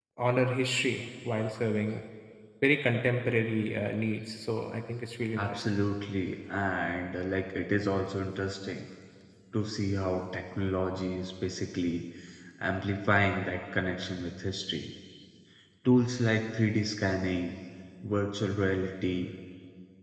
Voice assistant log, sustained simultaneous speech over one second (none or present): none